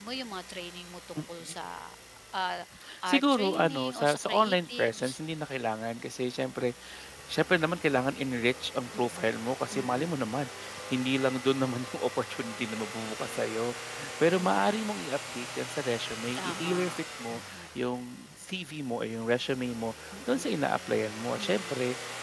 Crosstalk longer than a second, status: present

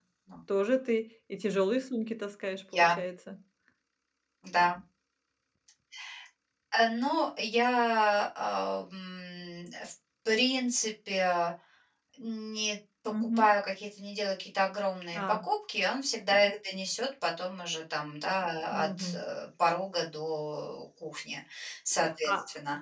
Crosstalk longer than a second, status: none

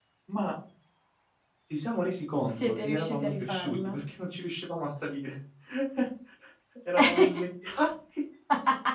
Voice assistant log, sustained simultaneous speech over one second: present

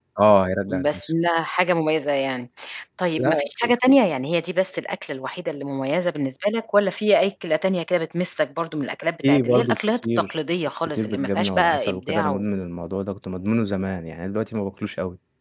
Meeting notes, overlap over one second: present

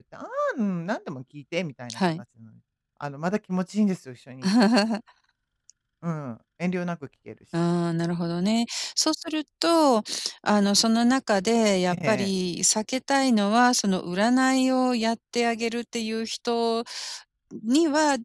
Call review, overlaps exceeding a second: none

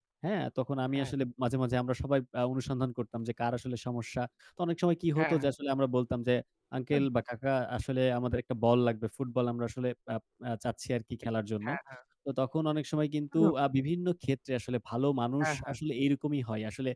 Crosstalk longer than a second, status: none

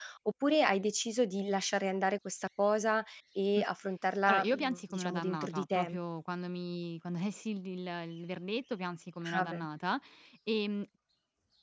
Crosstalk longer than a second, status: present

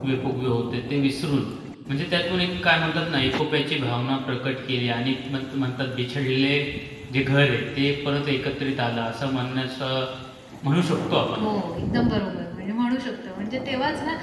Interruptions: none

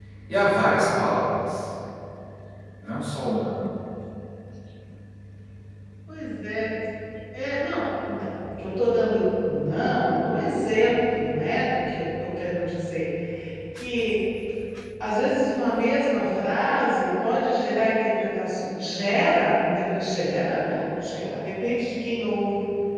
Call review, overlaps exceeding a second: none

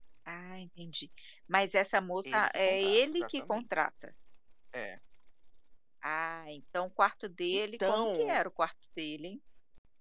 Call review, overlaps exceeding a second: present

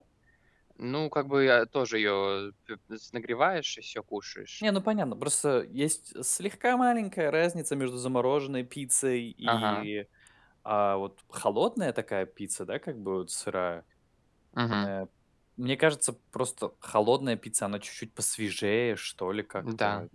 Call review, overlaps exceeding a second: none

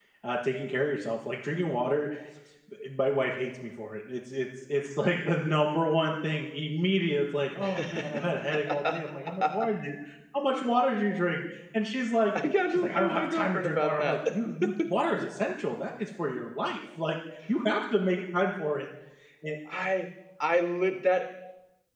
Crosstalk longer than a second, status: present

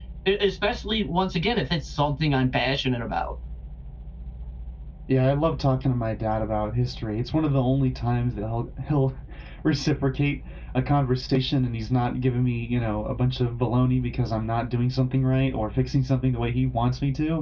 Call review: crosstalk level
none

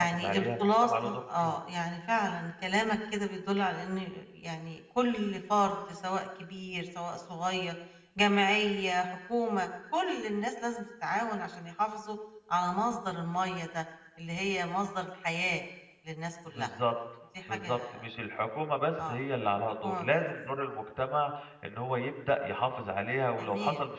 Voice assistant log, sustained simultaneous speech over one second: present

